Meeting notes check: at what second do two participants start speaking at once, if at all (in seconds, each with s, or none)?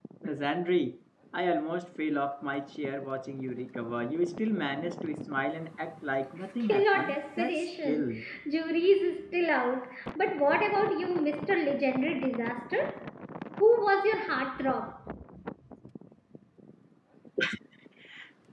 6.6 s